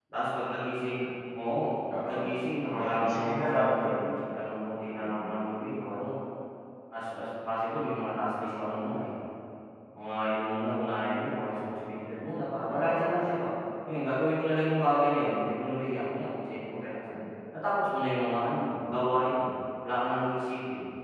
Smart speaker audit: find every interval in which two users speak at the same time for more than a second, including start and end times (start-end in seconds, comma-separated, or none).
2.6-4.0